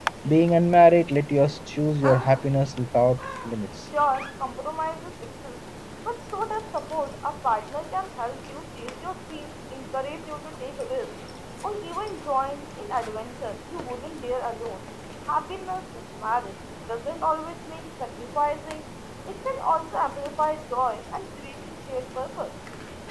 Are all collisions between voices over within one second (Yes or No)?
Yes